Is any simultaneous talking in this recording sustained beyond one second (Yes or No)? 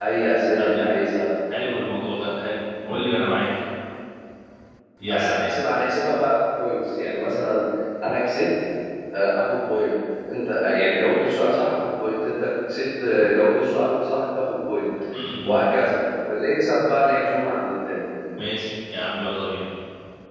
No